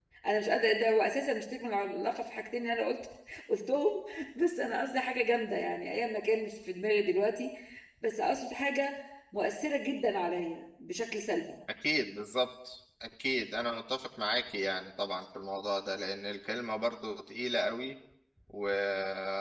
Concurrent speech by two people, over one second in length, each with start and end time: none

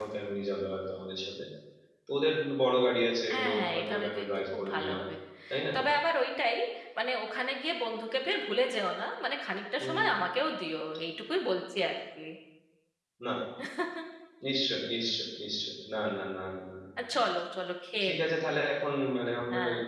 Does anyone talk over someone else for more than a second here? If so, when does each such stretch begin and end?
3.3-5.0

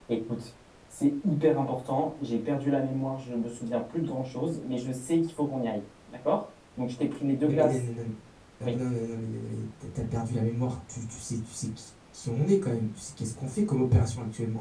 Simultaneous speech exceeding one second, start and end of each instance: none

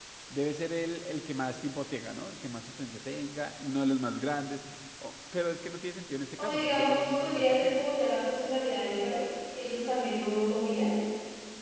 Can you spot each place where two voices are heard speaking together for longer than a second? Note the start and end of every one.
6.3-7.8

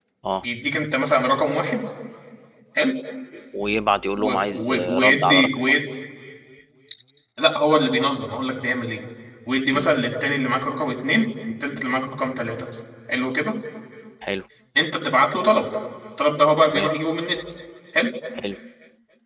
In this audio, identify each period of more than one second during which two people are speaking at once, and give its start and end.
4.2-5.8

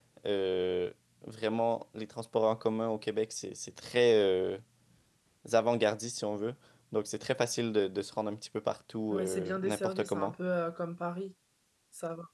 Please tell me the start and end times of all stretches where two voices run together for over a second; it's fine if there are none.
9.1-10.3

